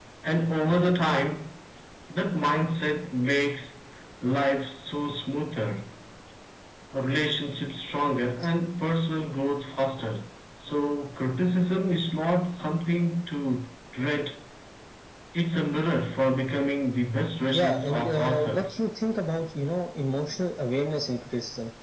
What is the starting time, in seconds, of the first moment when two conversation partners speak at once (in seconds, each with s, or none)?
17.5 s